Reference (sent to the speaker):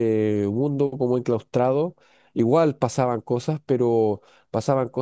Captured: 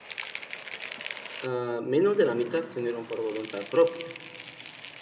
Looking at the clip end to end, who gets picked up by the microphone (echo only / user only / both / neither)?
user only